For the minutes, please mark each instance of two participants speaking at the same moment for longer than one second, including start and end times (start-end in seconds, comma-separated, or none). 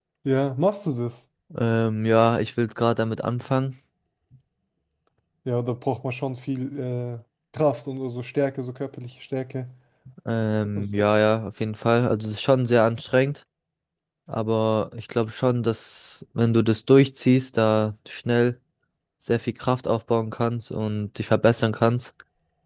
none